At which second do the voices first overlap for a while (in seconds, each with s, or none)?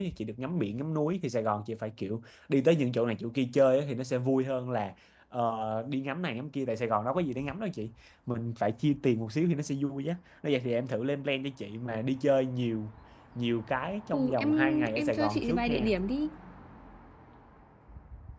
14.1 s